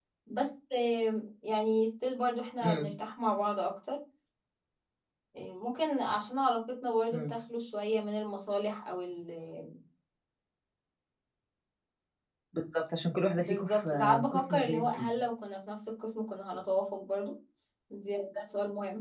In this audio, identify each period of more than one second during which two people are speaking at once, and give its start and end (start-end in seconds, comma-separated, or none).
13.4-15.2